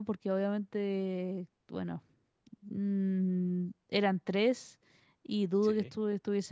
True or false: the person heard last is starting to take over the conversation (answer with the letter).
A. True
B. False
B